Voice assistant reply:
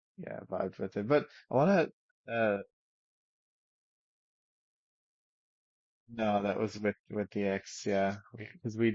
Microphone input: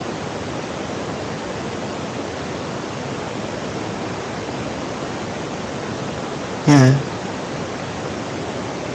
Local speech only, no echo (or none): yeah,